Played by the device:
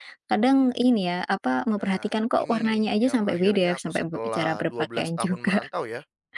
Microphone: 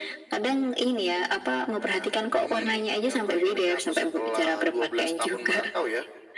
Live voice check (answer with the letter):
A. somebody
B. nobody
B